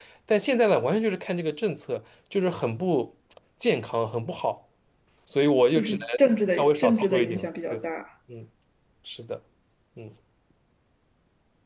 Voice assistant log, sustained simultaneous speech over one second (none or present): present